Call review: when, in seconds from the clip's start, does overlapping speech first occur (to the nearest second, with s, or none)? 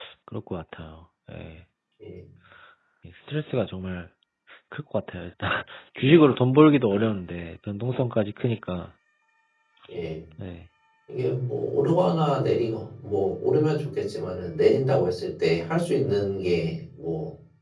none